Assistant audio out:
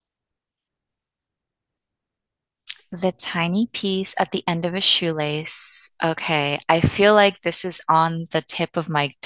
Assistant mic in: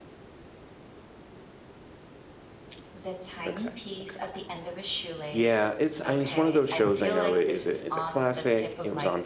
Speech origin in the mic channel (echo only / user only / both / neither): both